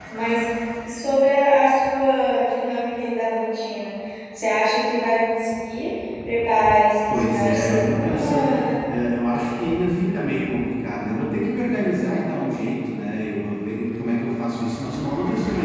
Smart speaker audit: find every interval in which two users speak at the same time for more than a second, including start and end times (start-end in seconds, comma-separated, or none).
7.1-8.5